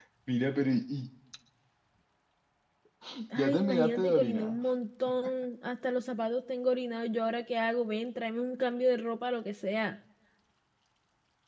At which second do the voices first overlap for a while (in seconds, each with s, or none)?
3.4 s